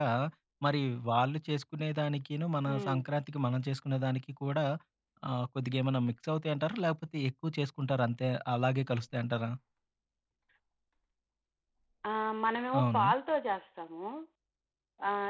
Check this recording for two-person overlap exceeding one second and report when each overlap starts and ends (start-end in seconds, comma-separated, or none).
none